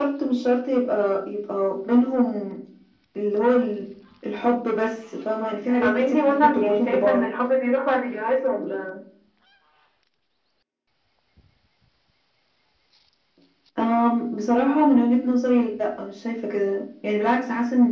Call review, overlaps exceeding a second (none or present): present